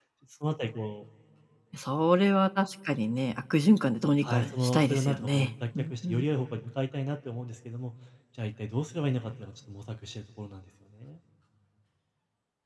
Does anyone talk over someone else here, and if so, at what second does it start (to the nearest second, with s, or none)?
4 s